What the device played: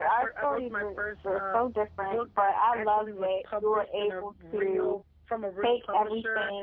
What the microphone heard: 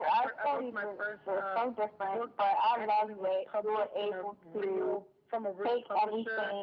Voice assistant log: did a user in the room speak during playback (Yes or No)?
No